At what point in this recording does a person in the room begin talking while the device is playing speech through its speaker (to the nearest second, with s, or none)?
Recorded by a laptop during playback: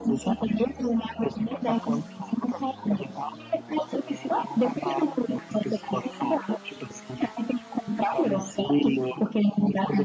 none